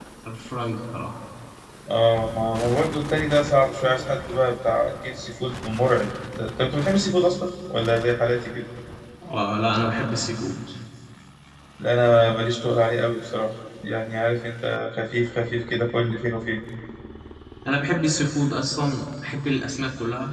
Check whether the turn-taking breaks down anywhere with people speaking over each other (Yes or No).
No